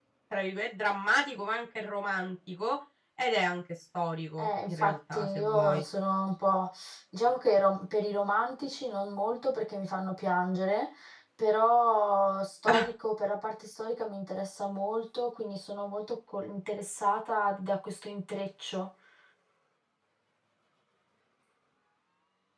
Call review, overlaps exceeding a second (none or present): present